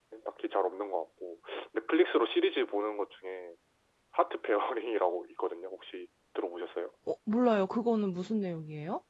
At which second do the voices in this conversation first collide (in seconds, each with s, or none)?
none